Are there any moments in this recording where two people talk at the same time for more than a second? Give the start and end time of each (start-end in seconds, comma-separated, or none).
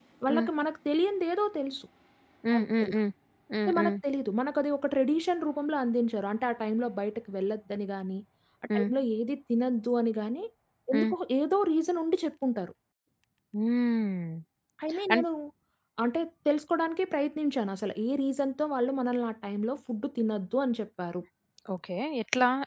none